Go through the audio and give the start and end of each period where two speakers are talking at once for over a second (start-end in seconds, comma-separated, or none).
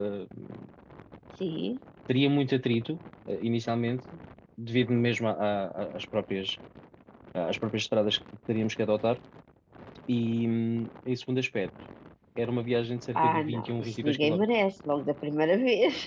13.2-14.5